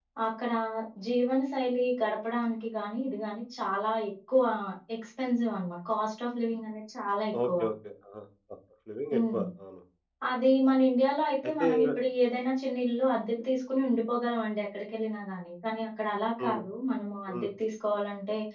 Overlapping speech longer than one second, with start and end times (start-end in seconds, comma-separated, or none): none